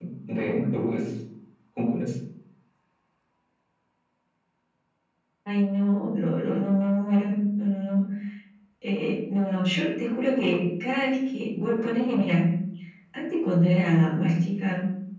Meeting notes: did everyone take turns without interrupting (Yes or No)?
Yes